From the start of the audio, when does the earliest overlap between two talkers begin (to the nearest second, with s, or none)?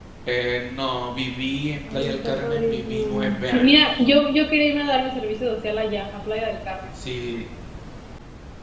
2 s